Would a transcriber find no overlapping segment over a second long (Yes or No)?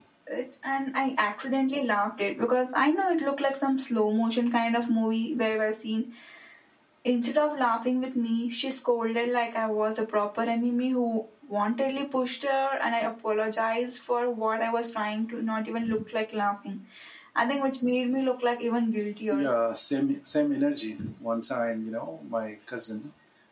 Yes